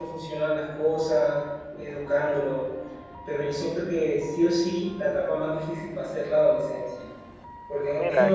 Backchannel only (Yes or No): Yes